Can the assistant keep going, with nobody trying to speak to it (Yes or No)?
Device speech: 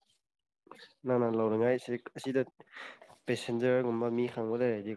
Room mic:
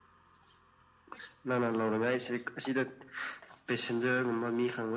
Yes